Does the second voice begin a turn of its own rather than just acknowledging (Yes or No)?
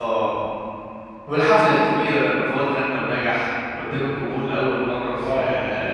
Yes